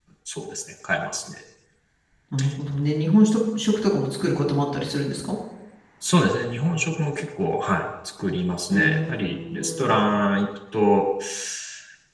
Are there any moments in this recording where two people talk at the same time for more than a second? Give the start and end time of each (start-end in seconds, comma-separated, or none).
8.7-10.0